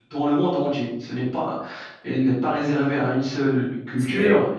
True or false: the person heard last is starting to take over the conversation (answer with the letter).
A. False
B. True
A